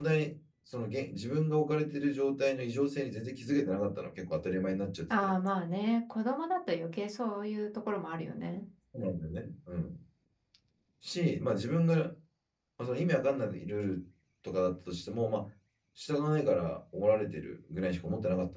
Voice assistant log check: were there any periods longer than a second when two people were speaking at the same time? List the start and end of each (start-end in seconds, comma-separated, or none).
none